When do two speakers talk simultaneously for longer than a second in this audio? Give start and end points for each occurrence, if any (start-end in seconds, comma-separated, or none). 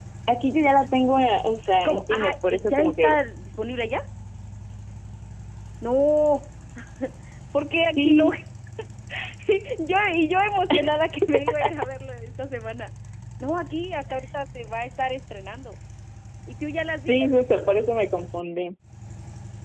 1.8-3.2